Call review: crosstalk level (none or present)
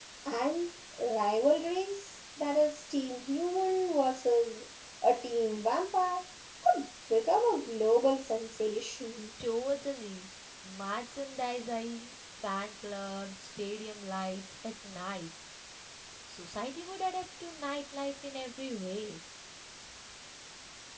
none